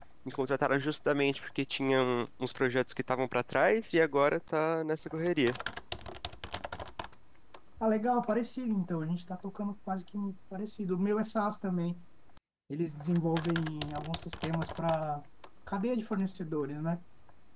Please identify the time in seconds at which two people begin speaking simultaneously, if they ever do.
none

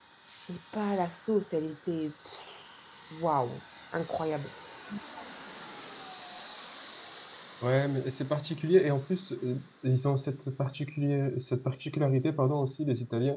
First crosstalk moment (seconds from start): none

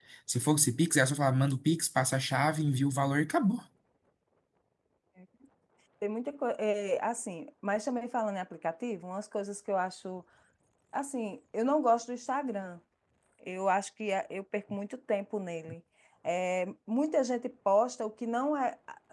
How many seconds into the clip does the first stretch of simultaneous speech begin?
none

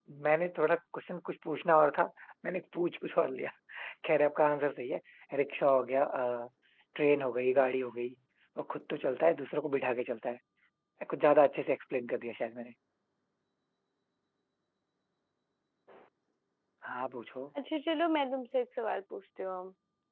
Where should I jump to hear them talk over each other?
none

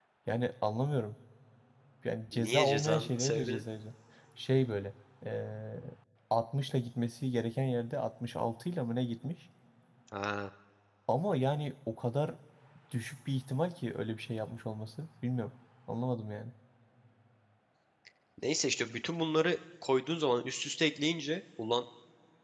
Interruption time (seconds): 2.3 s

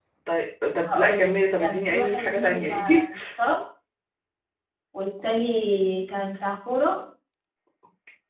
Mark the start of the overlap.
0.8 s

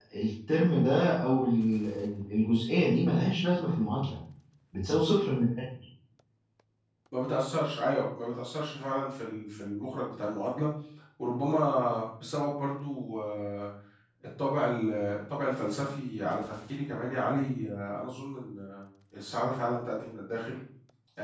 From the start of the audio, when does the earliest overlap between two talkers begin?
none

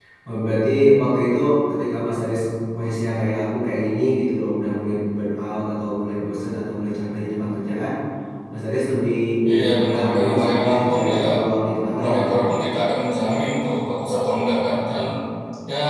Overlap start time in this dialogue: 9.5 s

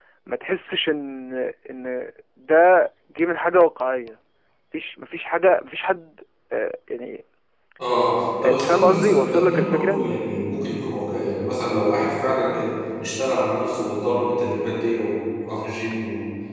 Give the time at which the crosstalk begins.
8.4 s

